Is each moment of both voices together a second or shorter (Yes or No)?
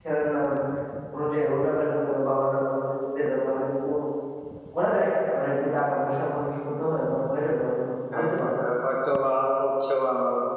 Yes